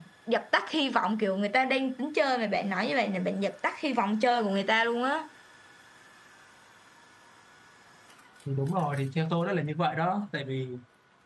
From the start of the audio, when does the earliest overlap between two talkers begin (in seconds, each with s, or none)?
none